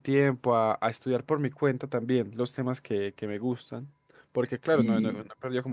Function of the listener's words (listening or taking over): listening